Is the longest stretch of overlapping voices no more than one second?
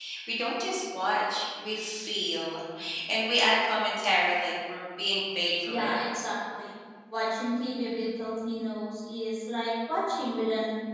Yes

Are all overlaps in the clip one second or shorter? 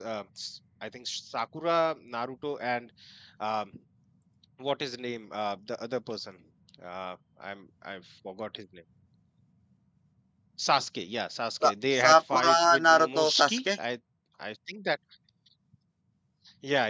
No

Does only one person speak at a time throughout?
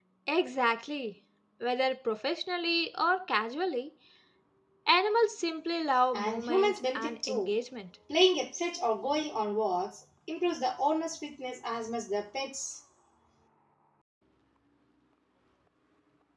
No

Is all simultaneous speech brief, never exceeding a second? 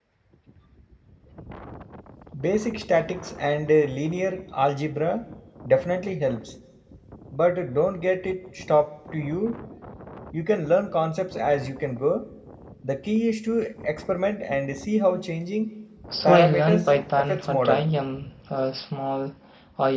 No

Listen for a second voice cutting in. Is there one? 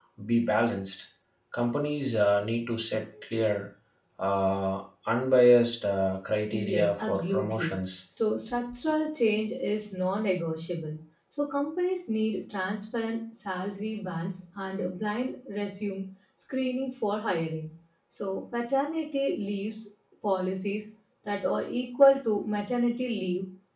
Yes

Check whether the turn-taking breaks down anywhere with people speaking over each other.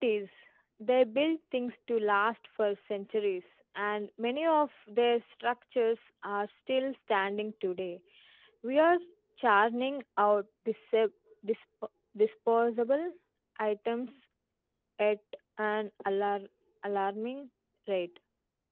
No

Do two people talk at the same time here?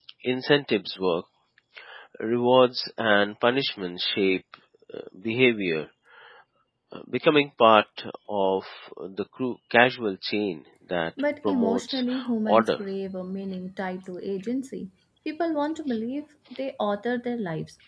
Yes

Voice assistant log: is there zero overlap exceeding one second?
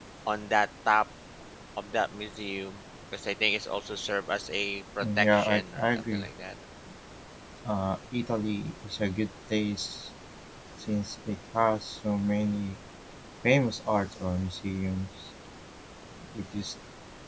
No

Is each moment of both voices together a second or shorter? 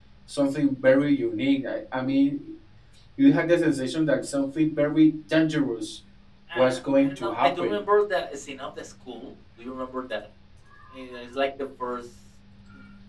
No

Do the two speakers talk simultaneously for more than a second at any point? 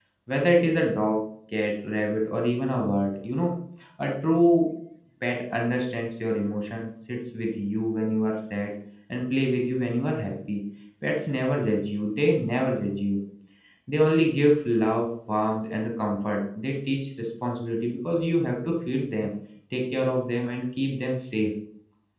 No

